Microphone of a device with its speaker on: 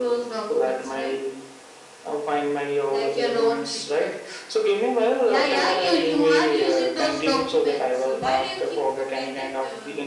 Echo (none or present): present